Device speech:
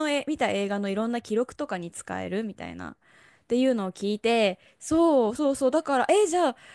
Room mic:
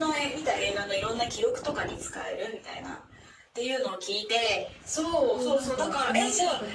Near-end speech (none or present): present